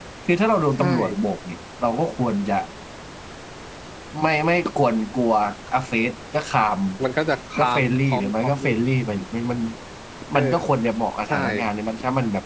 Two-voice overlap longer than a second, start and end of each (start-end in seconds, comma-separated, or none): 7.6-8.9